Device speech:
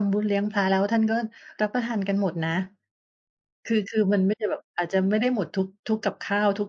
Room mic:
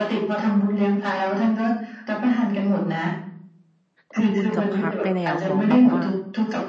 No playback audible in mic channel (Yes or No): No